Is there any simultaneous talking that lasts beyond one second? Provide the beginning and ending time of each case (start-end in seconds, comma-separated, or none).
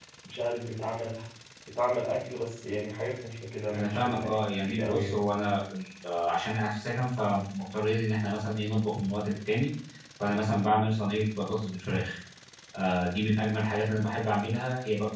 3.7-5.2